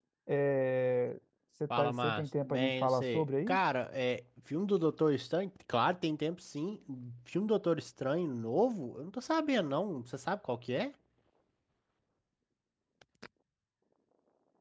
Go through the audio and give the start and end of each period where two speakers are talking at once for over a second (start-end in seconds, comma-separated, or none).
1.8-3.6